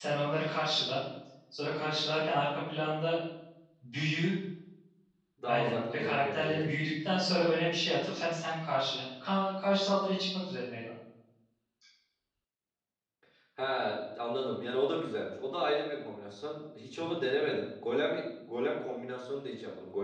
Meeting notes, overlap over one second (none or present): present